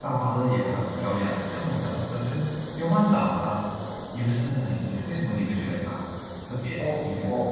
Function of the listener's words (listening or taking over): taking over